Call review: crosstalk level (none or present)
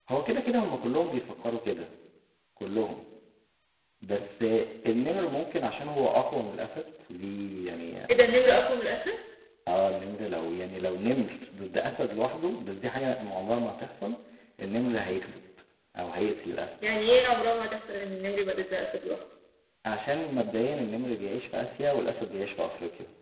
none